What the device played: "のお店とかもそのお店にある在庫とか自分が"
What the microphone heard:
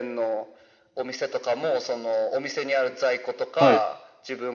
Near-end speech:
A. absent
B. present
B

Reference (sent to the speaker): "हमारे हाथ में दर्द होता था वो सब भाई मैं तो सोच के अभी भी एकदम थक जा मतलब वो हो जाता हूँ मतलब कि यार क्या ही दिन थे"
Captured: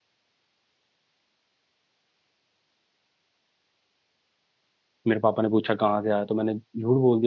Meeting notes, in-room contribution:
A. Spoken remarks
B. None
A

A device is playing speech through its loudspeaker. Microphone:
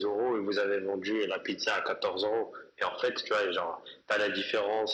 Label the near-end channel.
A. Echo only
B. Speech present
A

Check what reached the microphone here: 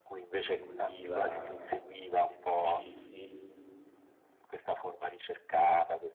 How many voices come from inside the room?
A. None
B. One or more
B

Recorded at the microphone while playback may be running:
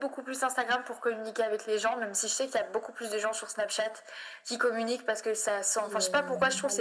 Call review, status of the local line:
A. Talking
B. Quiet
A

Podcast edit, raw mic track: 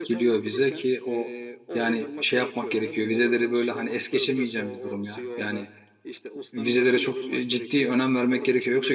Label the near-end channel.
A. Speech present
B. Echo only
A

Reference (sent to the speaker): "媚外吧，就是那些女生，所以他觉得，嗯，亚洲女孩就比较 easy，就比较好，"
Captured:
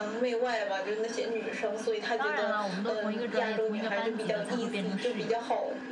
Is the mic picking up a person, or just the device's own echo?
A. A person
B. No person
A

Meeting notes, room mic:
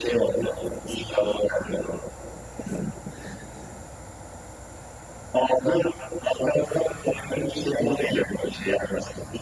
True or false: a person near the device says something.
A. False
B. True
A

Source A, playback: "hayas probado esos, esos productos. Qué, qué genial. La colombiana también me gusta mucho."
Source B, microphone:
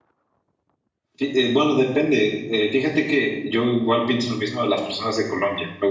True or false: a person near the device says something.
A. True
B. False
A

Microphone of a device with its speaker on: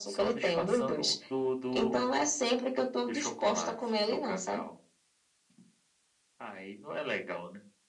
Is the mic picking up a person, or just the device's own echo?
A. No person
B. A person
A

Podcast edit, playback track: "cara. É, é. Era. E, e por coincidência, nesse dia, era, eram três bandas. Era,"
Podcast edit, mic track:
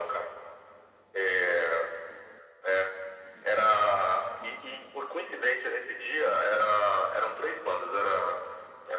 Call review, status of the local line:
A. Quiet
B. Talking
A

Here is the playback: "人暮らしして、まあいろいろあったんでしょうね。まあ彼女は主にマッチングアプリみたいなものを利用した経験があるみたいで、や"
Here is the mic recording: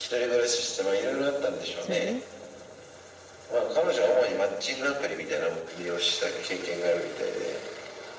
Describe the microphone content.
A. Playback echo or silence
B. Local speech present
B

